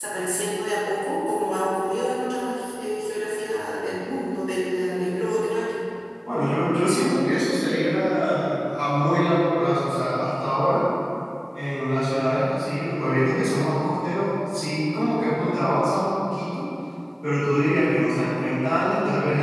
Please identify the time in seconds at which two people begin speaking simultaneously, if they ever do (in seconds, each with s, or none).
none